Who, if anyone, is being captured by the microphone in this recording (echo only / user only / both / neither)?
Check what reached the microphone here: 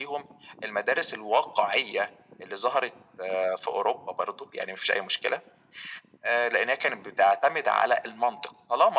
echo only